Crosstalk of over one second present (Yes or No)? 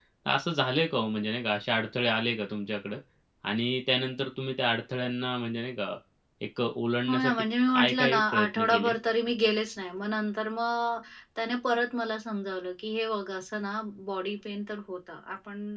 Yes